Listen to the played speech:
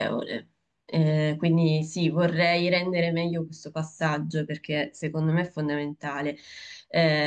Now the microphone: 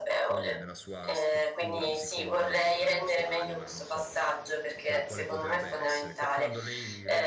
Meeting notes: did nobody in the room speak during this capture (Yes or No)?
No